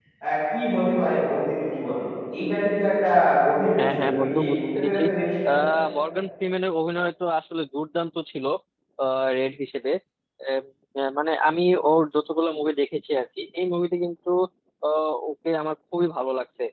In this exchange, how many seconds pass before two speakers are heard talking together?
3.8 s

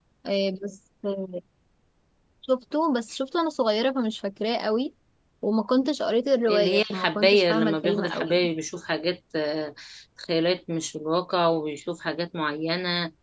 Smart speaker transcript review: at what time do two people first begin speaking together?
6.5 s

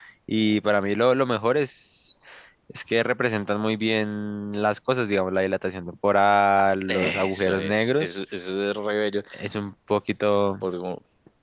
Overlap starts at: 6.9 s

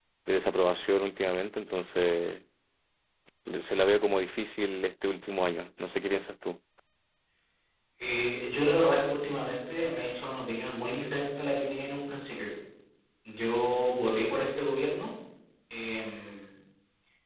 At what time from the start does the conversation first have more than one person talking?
none

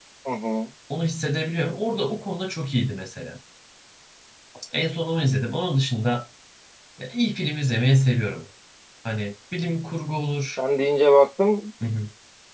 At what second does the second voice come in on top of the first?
none

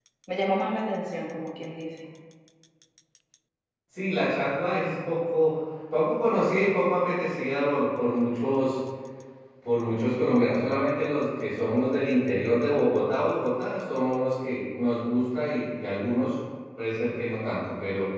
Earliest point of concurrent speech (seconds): none

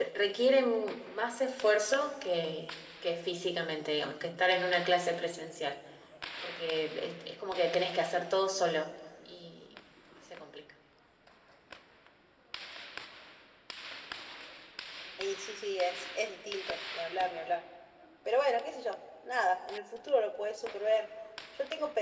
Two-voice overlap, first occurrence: none

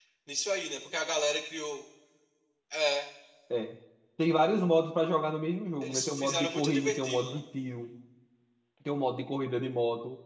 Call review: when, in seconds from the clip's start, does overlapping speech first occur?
5.8 s

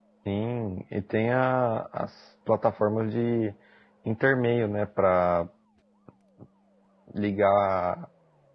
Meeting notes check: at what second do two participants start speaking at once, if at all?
none

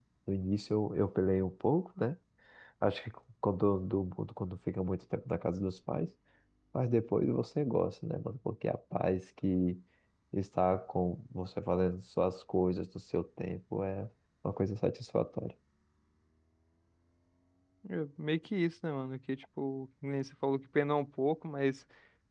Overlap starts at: none

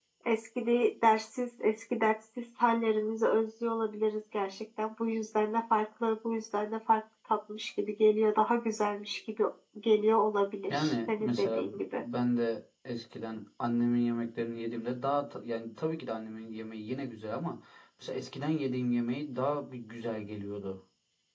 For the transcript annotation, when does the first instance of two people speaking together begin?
10.7 s

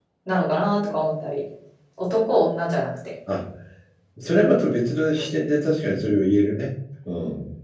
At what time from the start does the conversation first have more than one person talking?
none

